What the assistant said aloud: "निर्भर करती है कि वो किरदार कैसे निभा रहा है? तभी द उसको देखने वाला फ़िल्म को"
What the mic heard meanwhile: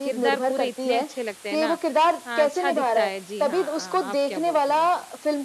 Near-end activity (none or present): present